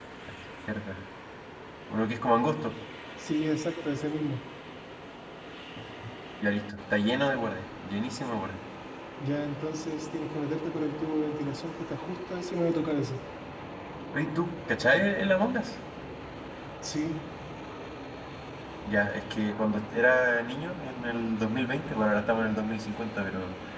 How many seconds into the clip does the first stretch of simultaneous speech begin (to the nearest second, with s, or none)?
none